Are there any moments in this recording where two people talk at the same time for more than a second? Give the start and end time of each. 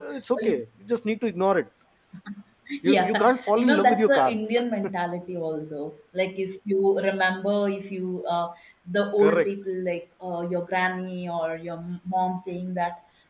2.9-4.3

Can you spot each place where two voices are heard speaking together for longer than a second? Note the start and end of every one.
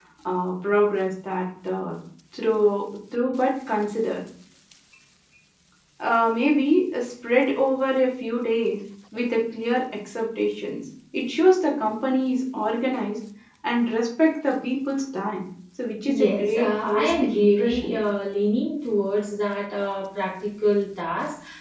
16.0-17.9

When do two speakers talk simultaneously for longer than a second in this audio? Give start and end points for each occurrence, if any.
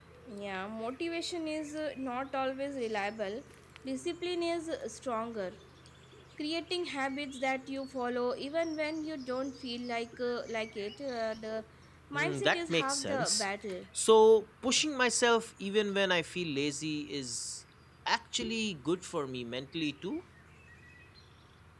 12.2-13.5

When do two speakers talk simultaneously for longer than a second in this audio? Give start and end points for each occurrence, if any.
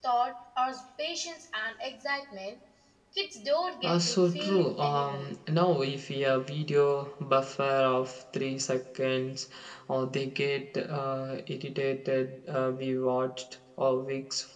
3.8-5.3

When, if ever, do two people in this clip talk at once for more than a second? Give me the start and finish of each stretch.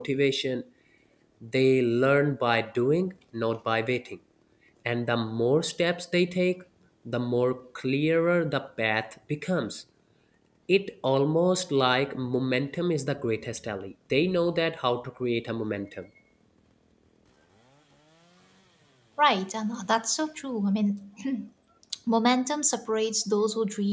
none

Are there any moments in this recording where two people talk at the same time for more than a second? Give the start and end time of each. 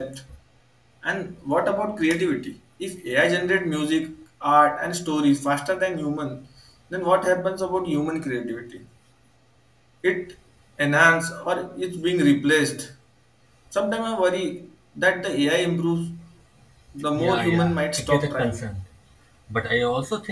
17.1-18.6

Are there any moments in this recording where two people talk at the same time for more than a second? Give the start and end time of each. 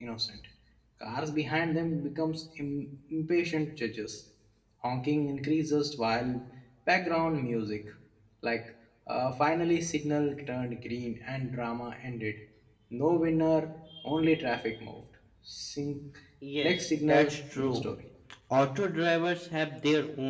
16.6-17.9

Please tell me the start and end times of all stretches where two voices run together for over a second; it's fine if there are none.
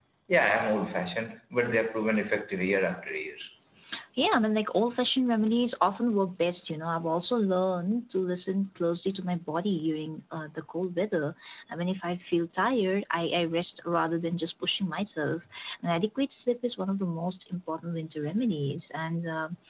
none

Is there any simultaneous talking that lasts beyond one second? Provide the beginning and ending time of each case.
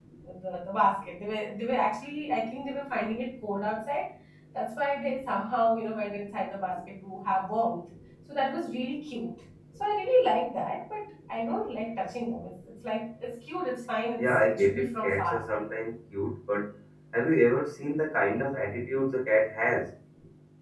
14.2-15.4

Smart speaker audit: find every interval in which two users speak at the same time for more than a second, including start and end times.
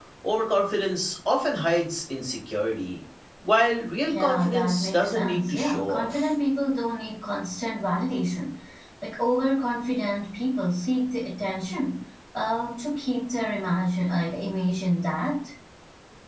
4.1-6.3

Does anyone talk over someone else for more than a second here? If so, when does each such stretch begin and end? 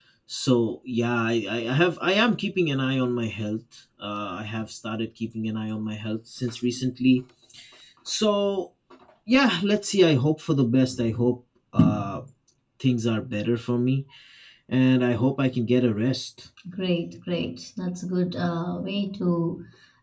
none

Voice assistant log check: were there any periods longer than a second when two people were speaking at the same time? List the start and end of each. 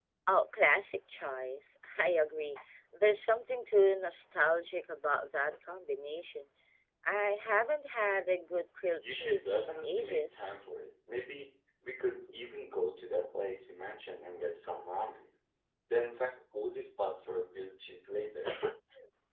9.0-10.5

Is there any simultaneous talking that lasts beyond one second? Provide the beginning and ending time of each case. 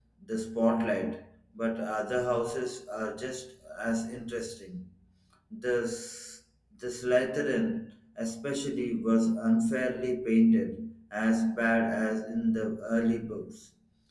none

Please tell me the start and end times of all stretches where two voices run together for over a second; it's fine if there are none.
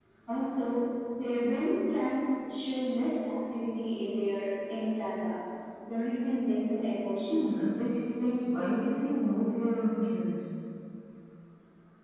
none

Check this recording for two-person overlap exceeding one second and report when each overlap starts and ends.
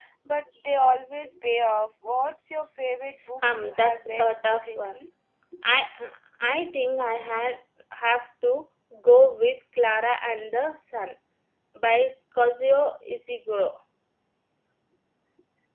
3.5-5.0

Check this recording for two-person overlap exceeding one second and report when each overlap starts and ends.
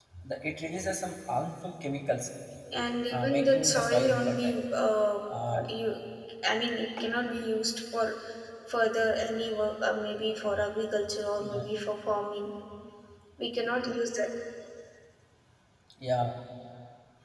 3.1-4.5

